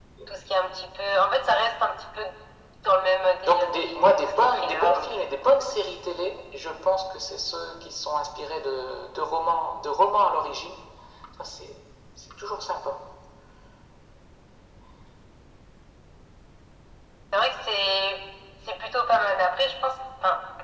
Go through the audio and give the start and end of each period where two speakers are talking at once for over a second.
3.4-5.2

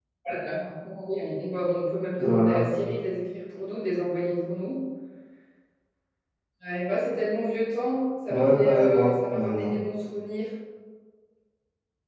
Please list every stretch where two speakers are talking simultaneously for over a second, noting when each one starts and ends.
8.3-9.7

